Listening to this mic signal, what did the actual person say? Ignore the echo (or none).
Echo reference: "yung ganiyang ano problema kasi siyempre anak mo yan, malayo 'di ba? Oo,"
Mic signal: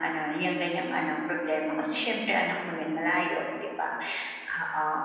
none